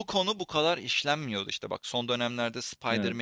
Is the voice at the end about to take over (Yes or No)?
No